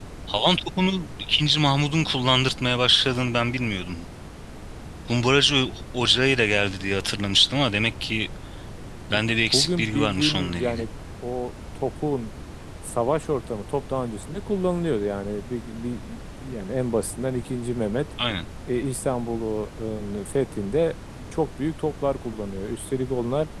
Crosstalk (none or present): present